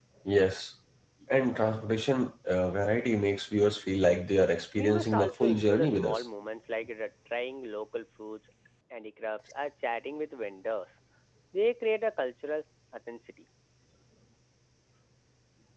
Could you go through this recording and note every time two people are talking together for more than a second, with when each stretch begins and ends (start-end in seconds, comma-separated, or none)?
4.7-6.2